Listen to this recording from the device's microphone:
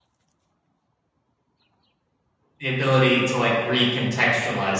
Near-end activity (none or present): present